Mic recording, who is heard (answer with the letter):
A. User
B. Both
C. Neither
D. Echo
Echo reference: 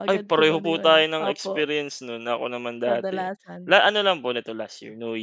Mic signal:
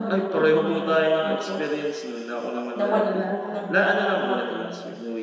B